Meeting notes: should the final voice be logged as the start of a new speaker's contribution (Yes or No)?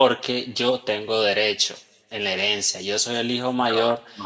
No